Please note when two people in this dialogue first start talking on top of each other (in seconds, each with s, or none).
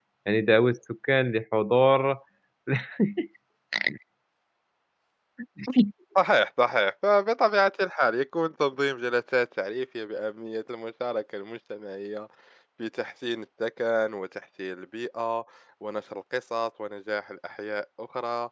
none